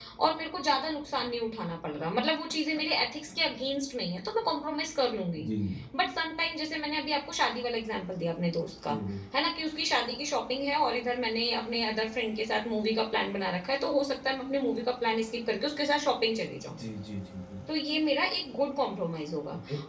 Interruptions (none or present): none